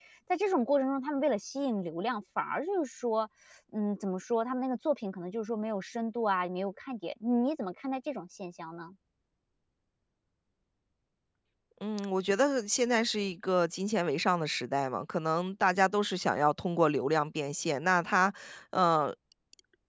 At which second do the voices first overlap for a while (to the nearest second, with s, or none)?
none